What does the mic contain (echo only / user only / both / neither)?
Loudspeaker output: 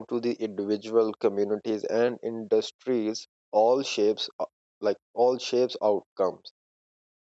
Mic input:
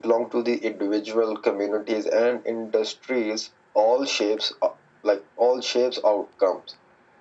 echo only